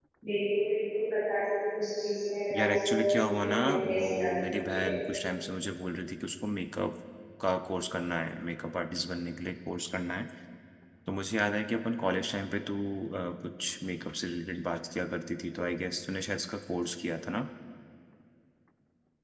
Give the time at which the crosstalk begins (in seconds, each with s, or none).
2.5 s